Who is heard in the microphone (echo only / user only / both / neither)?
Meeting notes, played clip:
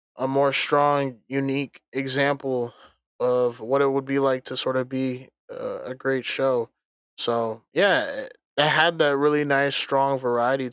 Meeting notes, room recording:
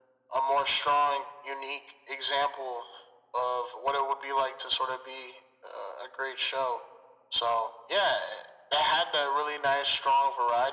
echo only